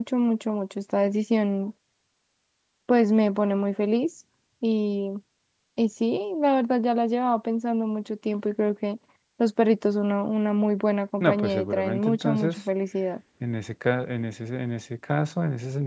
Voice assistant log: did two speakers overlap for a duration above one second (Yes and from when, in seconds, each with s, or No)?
Yes, from 11.2 s